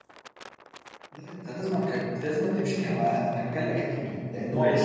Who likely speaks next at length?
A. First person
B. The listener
B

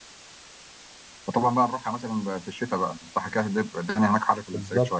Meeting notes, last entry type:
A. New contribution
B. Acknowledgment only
A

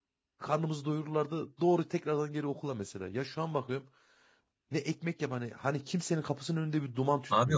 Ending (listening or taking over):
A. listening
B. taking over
B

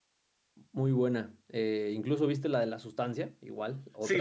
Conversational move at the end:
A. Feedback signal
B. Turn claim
B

